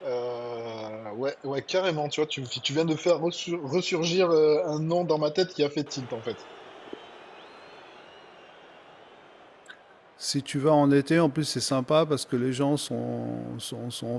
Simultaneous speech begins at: none

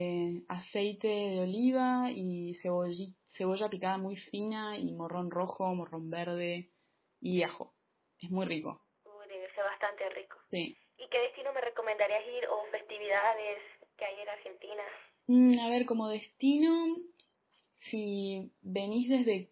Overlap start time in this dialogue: none

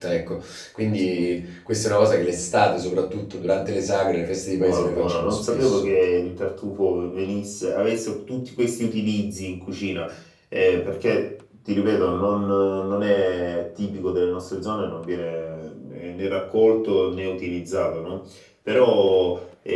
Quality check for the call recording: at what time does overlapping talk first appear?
4.5 s

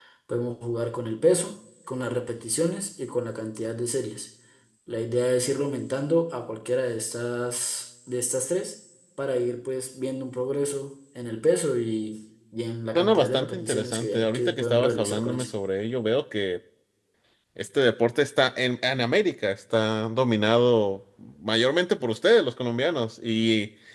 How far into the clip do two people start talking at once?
13.0 s

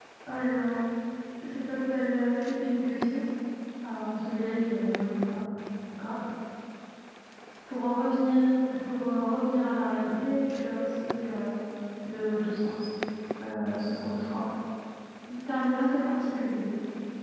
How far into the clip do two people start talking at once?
none

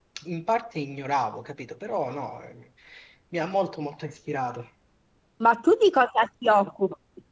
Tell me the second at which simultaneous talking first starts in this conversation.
none

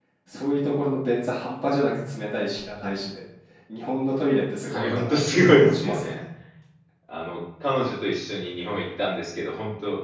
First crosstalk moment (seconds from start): 4.7 s

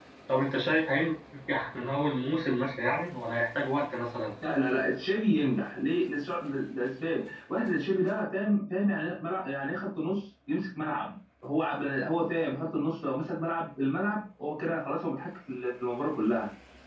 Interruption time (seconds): none

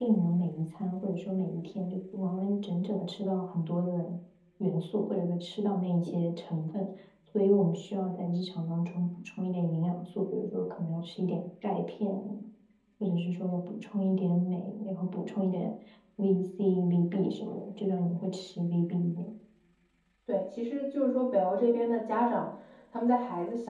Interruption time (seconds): none

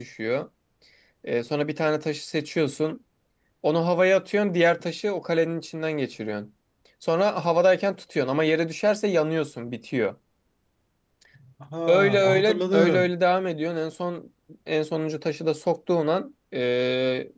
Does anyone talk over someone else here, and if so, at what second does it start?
11.9 s

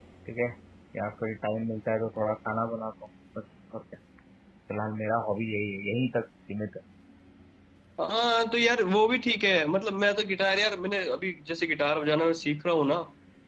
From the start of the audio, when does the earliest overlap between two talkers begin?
none

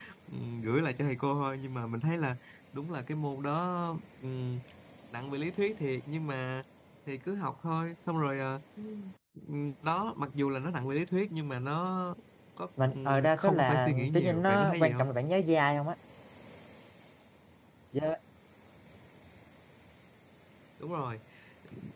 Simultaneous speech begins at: 12.8 s

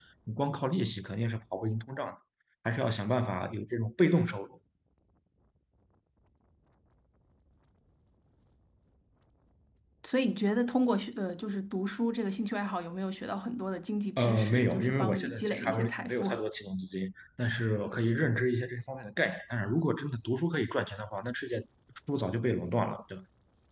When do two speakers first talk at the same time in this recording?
14.2 s

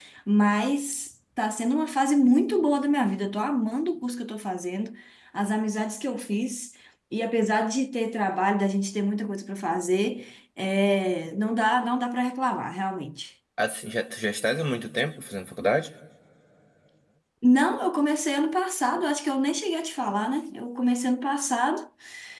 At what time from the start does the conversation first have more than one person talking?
none

